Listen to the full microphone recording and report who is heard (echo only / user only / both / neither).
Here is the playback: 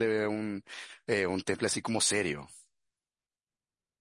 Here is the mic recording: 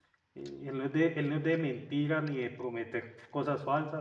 user only